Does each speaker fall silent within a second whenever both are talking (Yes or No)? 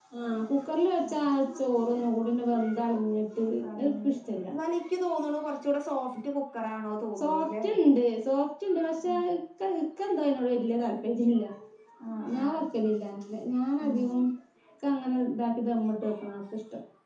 Yes